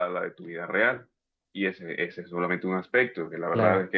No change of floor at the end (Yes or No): No